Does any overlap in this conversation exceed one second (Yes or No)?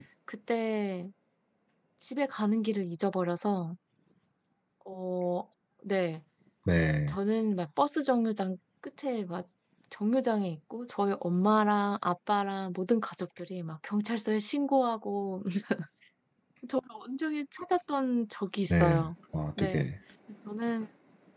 No